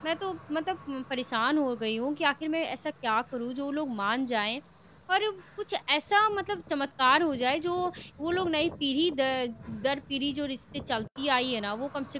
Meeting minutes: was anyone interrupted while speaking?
No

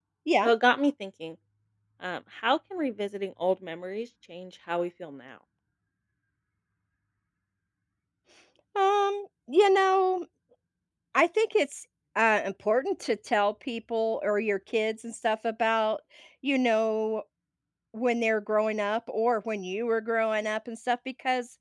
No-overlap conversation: Yes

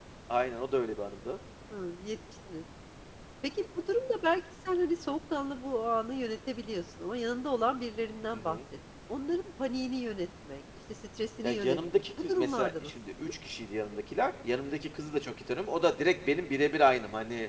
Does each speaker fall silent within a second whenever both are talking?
No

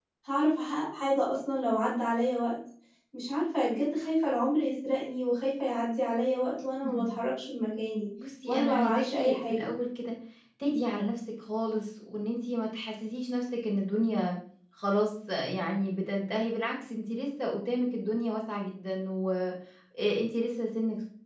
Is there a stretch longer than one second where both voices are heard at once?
Yes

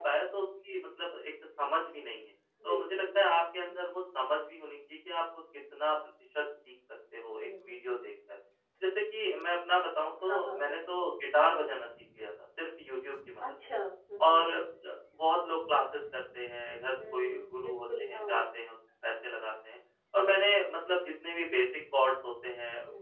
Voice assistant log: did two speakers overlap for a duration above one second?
Yes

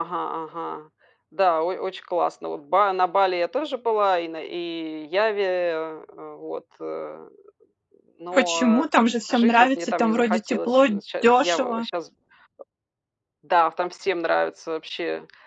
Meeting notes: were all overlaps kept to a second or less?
No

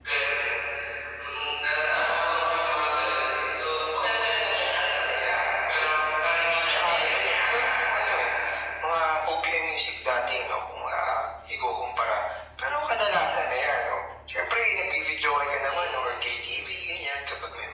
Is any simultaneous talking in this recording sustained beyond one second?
Yes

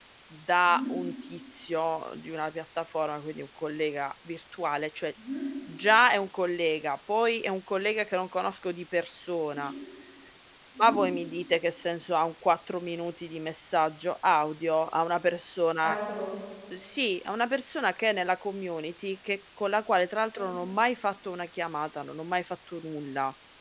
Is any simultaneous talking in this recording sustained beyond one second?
No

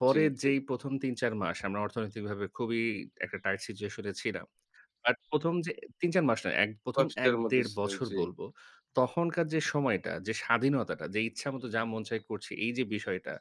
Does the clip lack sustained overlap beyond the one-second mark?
No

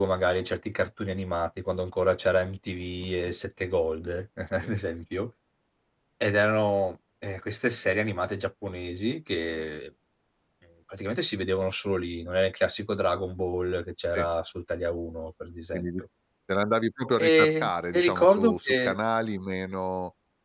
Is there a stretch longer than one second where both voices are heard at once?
Yes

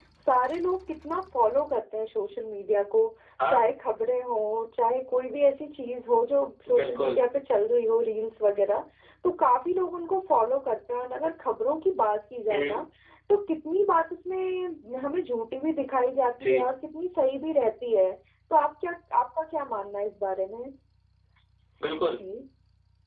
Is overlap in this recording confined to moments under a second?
Yes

